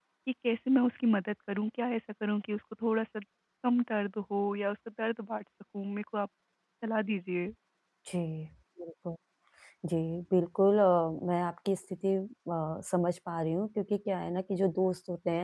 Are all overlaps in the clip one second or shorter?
Yes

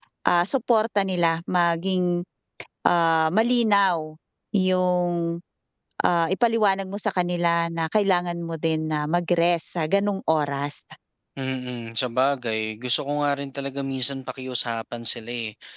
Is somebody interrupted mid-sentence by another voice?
No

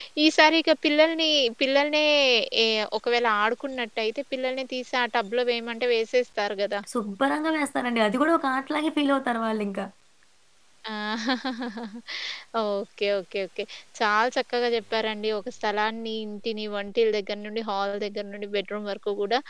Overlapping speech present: No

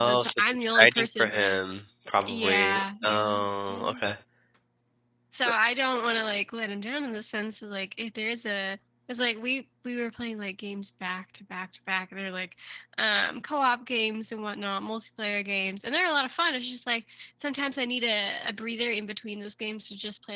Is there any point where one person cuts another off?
Yes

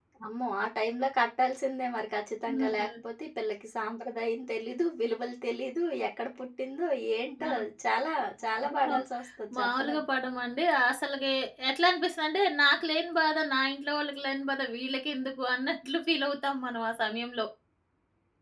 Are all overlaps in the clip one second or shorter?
Yes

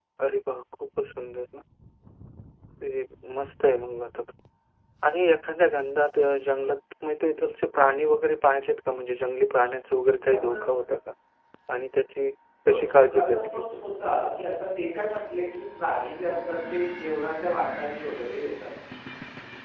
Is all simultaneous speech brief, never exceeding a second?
No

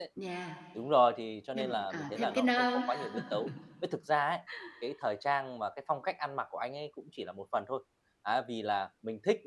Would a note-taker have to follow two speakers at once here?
Yes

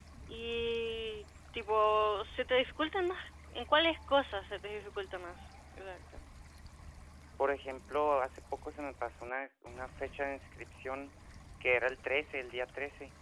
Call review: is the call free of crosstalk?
Yes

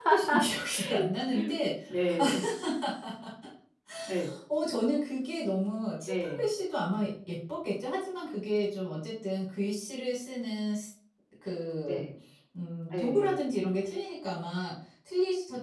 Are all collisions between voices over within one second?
Yes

